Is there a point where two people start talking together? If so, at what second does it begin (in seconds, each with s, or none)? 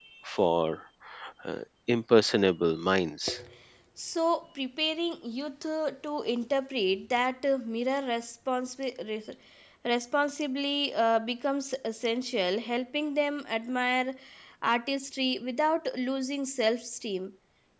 none